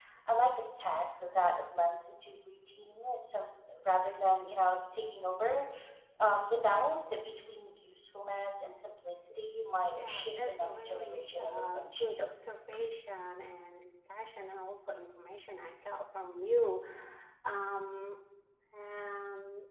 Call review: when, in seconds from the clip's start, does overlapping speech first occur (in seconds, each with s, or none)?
10.0 s